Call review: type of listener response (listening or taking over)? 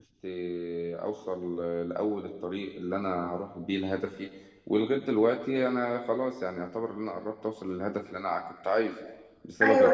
listening